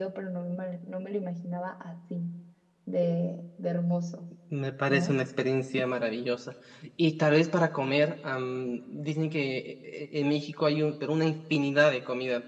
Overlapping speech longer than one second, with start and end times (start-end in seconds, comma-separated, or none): none